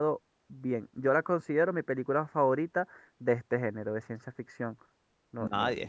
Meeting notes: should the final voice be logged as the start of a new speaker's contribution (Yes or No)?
Yes